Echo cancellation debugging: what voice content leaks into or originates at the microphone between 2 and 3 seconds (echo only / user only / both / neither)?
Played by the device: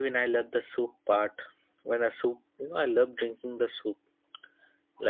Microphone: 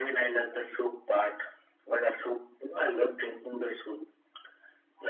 echo only